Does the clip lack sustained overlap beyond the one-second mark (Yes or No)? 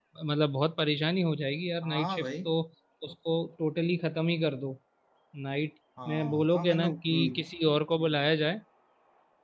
No